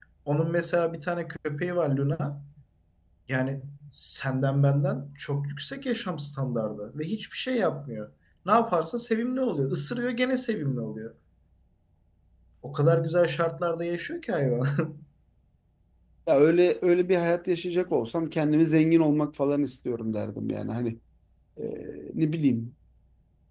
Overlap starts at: none

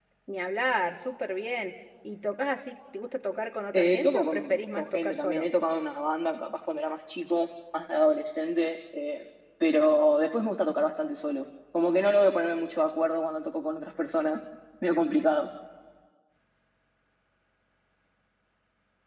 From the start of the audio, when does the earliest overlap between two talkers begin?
3.7 s

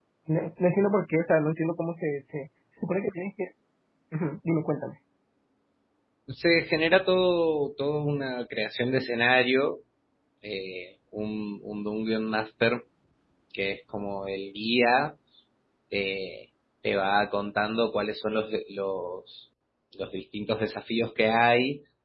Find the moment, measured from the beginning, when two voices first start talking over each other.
none

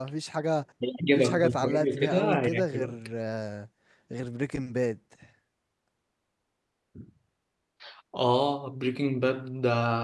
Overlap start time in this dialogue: 1.1 s

